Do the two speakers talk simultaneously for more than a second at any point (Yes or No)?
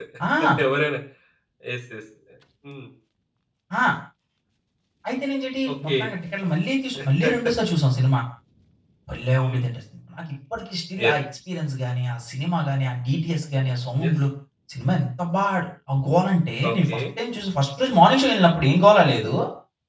No